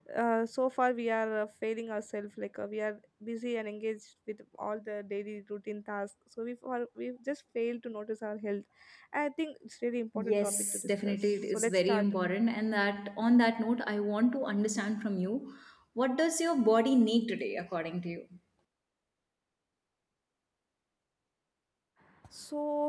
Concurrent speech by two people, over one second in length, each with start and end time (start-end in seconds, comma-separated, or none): 10.2-12.1